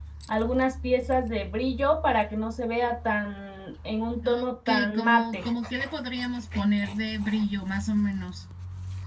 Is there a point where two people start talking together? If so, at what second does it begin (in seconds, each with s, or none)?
4.2 s